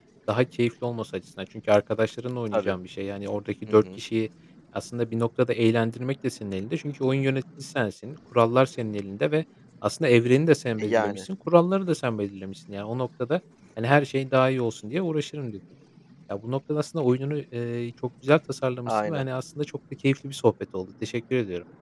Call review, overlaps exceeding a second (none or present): none